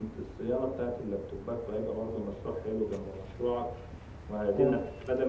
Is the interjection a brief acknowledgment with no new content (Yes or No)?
Yes